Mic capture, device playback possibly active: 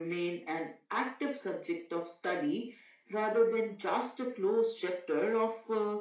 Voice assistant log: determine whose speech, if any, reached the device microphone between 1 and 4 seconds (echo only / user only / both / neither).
echo only